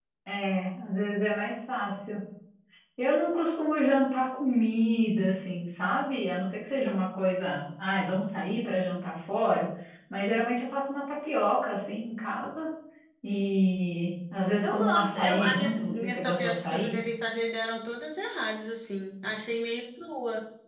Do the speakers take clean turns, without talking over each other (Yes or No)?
No